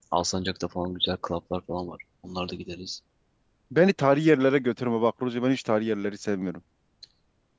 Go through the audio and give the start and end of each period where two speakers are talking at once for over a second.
none

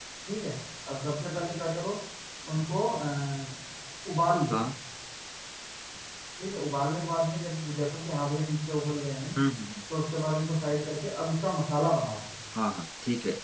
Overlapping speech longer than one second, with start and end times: none

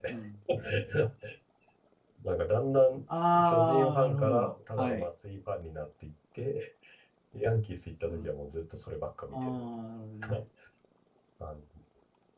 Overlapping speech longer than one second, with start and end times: 3.4-5.0

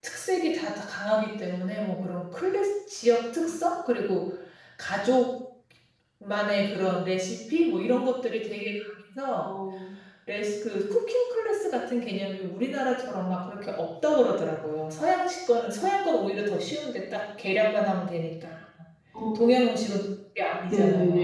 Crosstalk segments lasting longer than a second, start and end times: none

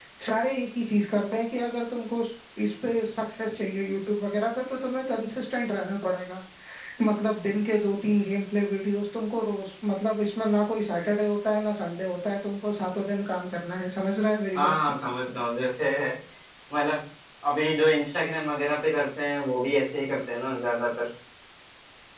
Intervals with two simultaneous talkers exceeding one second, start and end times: none

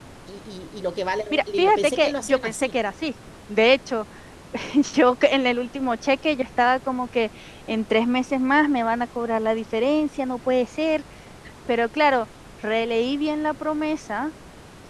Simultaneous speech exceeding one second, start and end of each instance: 1.3-2.5

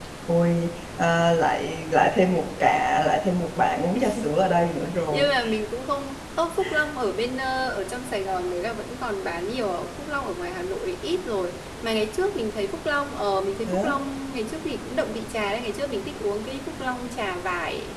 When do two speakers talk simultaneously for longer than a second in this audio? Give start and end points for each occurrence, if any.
none

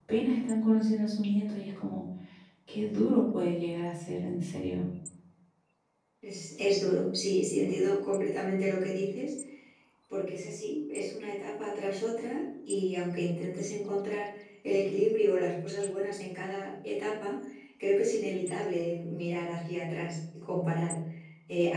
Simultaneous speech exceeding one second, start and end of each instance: none

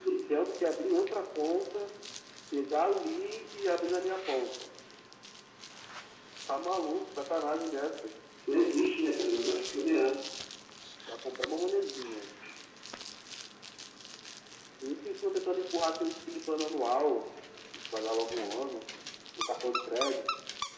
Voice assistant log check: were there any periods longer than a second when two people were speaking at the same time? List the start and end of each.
none

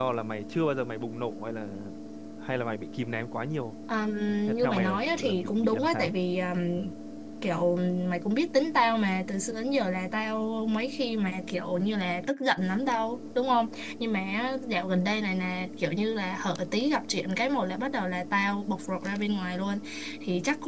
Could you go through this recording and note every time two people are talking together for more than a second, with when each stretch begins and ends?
4.5-6.1

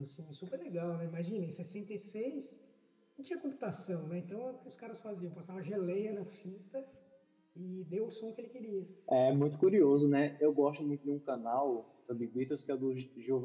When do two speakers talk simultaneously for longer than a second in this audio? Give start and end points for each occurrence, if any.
none

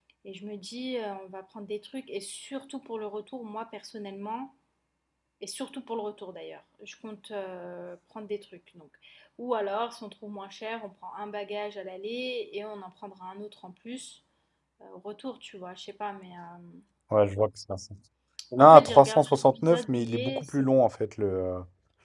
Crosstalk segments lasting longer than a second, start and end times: 18.6-20.4

